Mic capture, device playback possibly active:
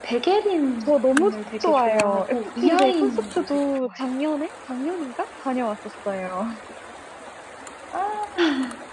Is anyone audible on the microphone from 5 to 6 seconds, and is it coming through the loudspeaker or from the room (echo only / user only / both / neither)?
user only